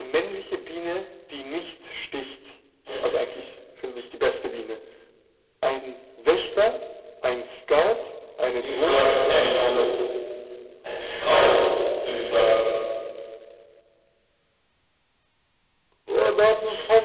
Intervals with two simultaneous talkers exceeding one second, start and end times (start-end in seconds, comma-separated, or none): 8.6-9.9